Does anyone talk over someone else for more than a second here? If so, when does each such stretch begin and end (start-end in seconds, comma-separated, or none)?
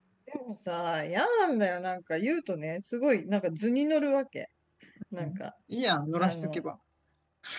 none